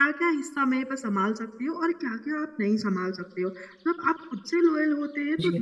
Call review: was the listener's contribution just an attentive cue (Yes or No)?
Yes